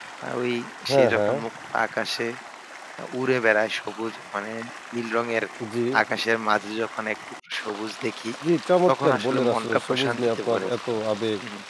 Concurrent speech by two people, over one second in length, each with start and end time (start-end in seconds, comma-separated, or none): 8.9-10.7